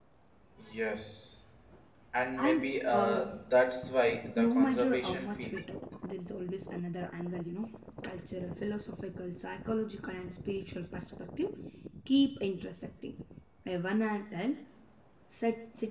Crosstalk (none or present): present